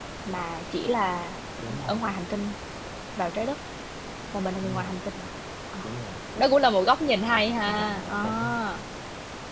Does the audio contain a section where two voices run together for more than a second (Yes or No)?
Yes